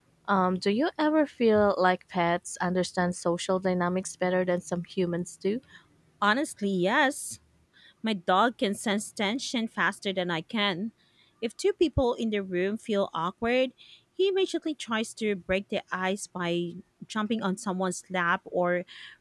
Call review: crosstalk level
none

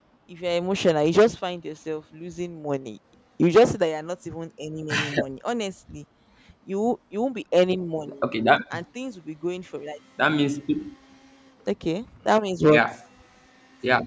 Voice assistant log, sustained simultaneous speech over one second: none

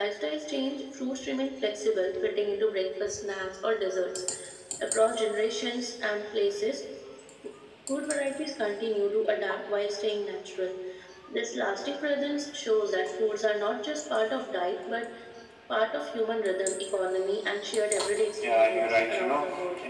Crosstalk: present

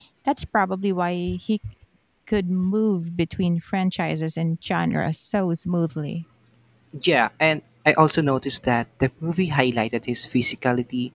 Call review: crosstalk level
none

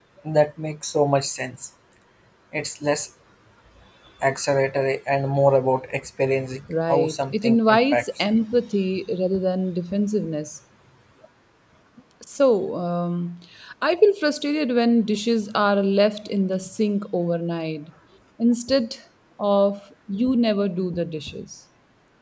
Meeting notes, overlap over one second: present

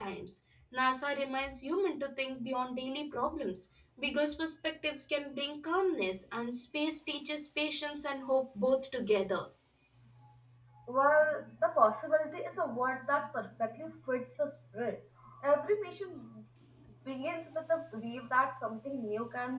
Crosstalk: none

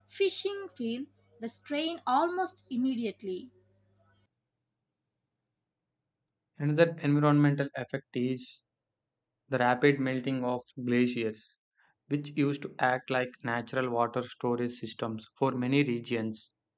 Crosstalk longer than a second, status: none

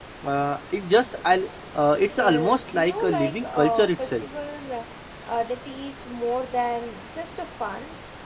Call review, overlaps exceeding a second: present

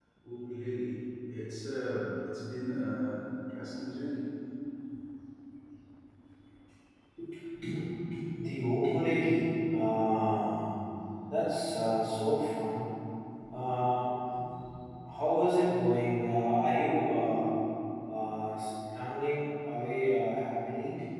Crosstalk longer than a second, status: none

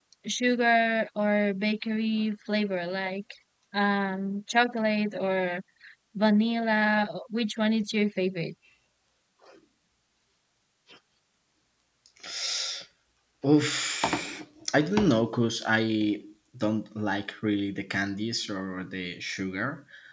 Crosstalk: none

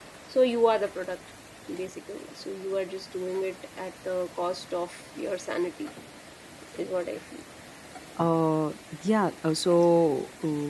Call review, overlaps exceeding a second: none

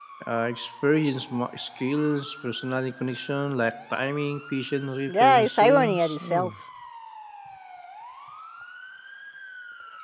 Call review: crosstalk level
present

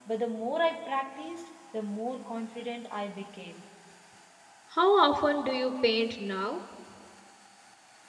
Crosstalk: none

